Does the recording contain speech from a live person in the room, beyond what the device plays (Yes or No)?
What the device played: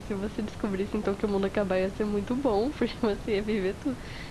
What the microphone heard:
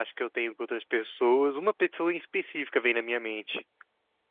Yes